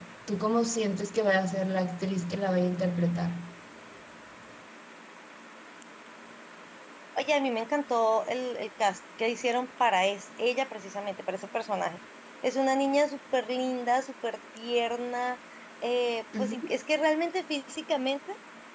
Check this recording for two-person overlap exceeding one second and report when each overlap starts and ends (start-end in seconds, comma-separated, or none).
none